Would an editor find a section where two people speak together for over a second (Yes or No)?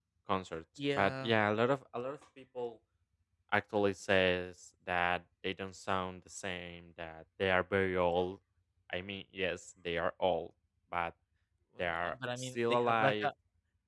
Yes